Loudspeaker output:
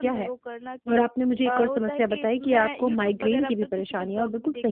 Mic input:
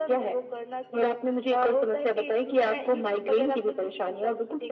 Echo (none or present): present